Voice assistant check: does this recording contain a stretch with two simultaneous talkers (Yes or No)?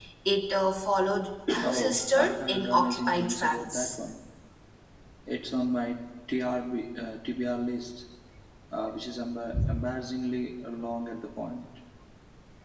Yes